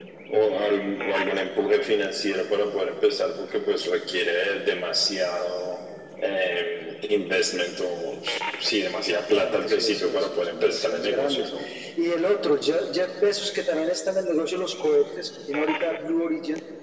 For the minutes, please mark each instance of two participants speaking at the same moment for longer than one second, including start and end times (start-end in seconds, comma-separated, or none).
8.9-11.5